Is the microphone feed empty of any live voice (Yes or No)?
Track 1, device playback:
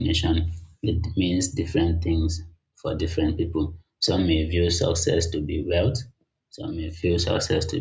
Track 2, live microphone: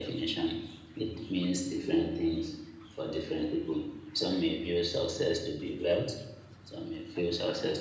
Yes